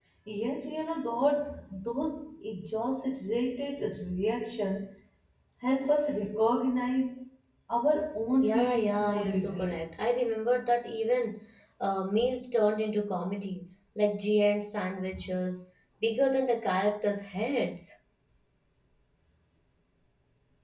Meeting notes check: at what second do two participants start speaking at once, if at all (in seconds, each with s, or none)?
8.4 s